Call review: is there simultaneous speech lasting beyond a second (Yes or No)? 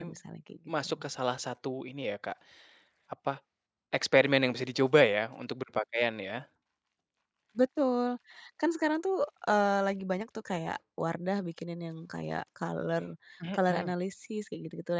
No